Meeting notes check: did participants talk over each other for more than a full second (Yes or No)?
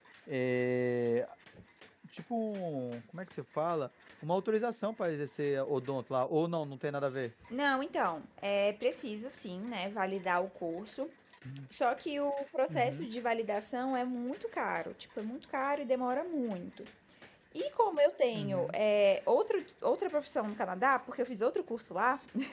No